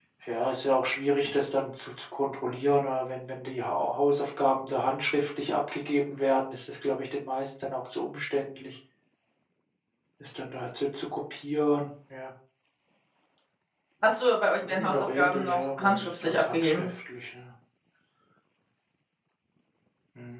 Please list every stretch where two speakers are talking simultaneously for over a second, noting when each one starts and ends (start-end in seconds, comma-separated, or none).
14.7-16.9